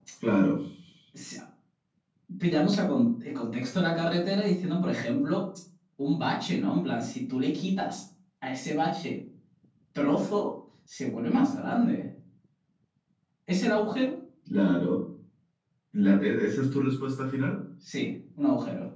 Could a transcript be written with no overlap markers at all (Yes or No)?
Yes